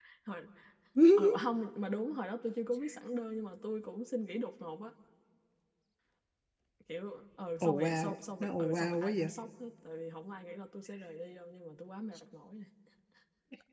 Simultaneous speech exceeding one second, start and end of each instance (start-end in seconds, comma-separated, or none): 7.6-9.3